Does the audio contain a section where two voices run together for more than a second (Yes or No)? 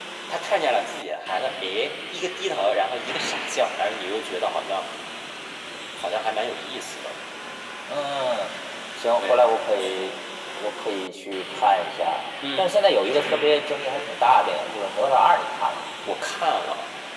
No